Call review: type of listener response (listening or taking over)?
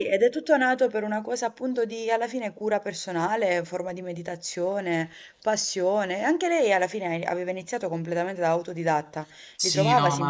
taking over